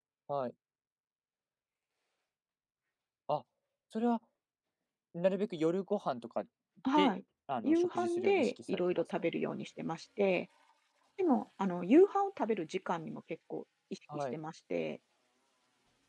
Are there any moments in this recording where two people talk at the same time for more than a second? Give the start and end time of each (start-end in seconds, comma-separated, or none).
7.6-9.0